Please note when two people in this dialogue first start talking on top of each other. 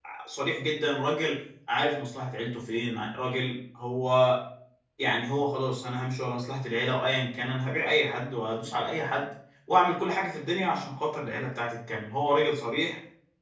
none

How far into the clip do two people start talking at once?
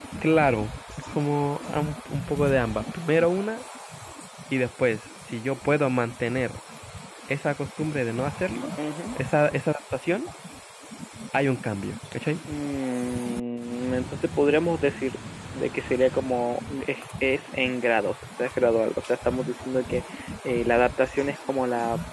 none

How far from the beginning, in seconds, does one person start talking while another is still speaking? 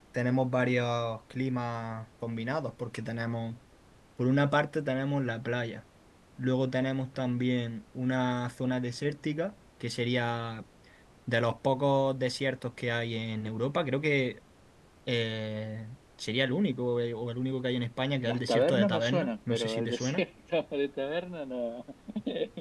18 s

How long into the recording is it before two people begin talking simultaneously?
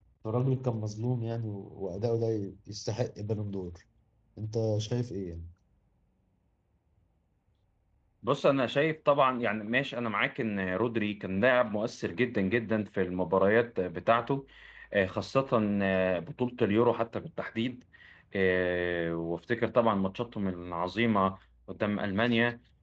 none

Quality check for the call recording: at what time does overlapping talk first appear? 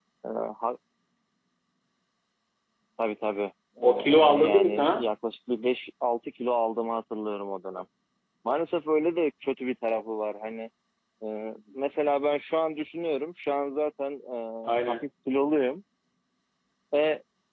4 s

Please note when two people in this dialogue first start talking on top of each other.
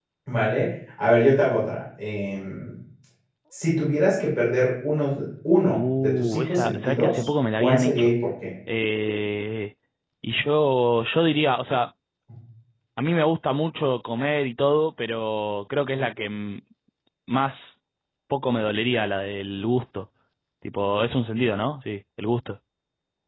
6 s

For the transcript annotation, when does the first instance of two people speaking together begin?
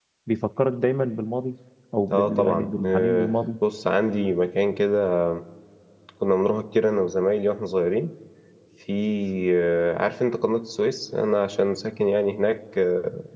2 s

